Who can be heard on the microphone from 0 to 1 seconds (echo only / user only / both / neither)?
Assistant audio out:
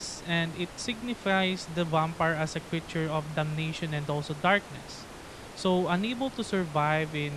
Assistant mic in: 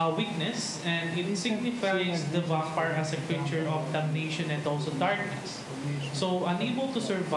echo only